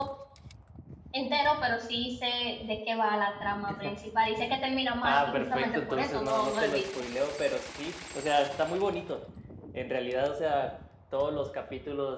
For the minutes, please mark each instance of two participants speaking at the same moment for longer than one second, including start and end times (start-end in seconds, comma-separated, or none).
5.0-6.8